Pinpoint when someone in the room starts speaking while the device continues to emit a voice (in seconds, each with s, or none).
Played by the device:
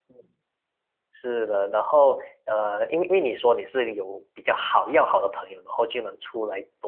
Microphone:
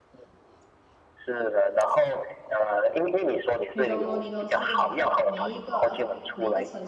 3.7 s